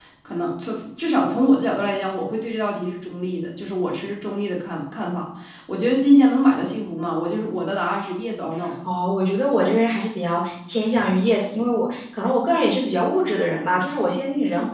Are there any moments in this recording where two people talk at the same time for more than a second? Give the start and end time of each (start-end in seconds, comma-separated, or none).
none